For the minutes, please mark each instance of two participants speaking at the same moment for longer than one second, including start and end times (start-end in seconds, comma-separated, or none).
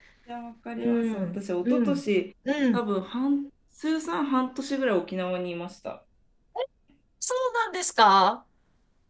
0.8-2.0